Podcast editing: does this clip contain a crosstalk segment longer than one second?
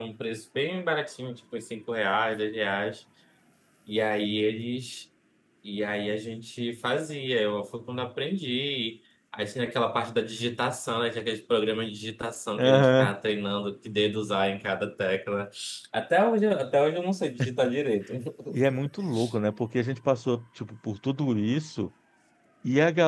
No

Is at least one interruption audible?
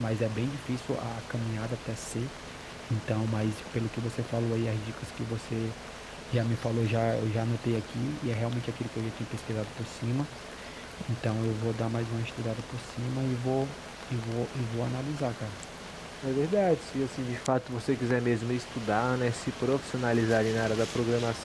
No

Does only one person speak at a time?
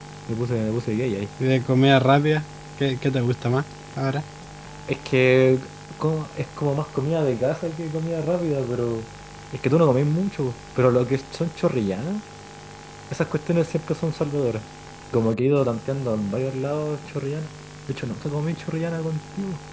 Yes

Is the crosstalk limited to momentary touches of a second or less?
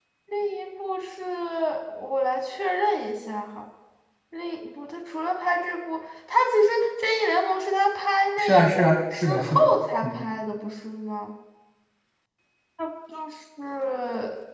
No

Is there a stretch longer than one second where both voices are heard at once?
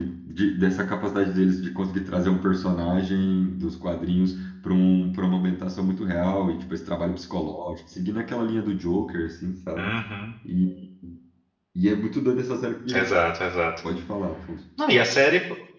No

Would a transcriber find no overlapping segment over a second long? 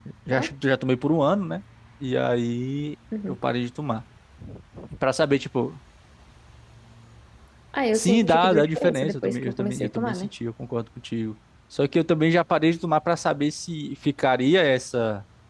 No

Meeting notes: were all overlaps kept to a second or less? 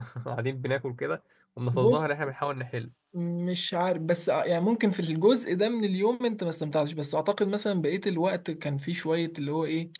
Yes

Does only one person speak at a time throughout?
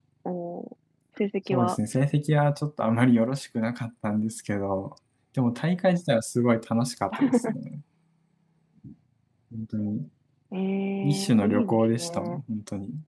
No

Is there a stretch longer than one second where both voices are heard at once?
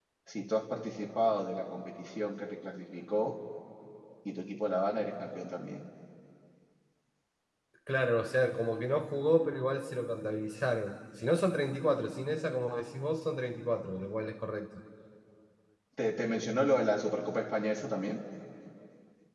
No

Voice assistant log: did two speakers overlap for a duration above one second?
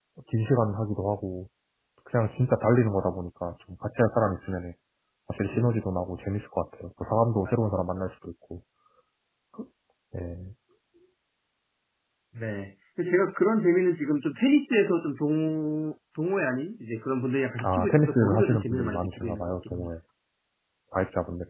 Yes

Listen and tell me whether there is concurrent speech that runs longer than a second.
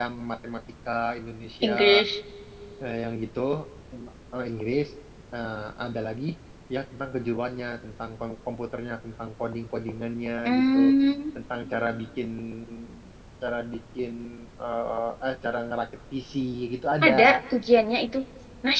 No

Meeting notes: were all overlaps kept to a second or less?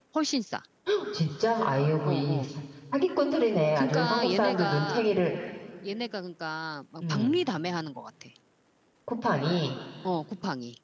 No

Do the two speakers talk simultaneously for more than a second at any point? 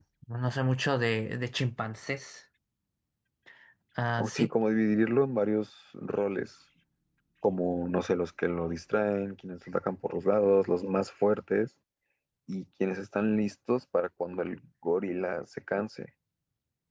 No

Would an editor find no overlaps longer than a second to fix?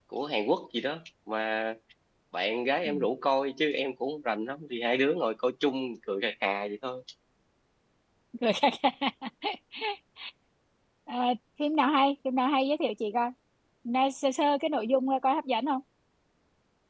Yes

